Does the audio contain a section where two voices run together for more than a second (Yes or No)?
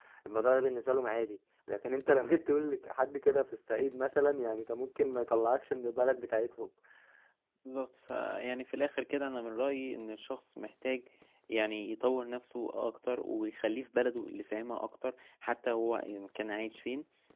No